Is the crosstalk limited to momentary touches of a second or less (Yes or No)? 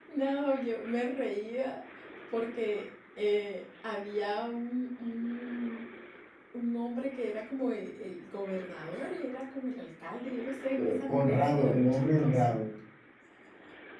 No